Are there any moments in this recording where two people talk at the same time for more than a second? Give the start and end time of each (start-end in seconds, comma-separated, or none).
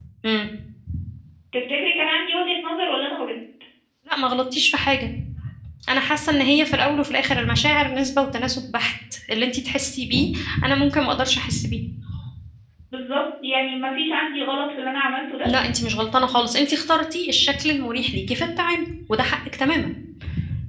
none